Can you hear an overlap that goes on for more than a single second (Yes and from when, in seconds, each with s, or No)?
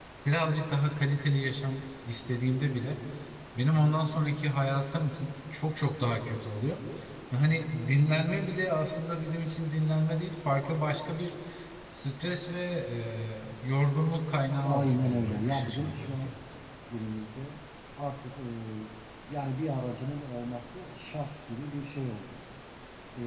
Yes, from 14.7 s